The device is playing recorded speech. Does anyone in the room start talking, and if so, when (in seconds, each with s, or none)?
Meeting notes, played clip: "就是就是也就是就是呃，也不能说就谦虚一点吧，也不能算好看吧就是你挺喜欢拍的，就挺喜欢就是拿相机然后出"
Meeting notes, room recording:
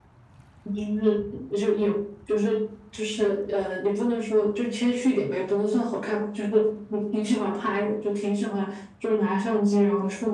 none